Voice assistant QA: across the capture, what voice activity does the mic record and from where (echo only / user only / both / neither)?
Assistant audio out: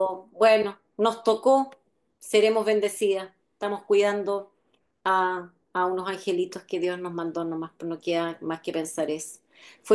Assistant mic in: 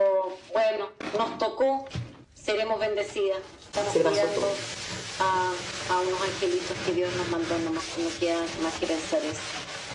both